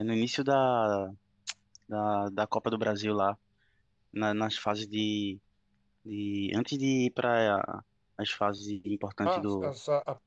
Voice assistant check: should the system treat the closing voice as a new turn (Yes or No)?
Yes